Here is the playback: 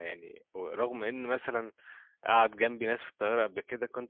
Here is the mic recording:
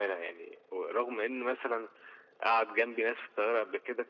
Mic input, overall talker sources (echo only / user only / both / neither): echo only